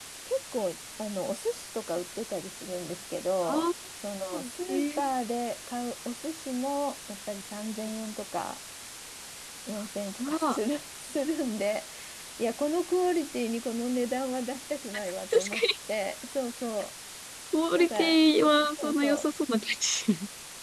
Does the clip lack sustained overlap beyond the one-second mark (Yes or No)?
No